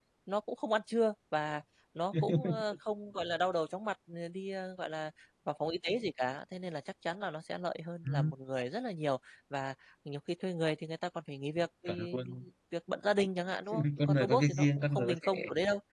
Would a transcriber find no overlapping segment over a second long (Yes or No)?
No